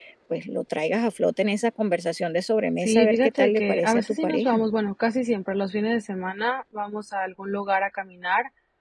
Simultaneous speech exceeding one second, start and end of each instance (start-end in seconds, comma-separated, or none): 2.8-4.6